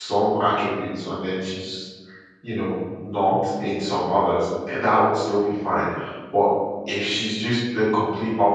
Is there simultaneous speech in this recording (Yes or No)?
No